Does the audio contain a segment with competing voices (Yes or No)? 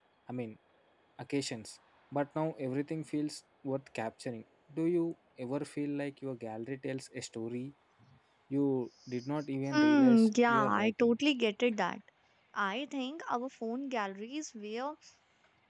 Yes